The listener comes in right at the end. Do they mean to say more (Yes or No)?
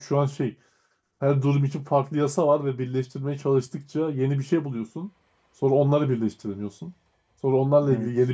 No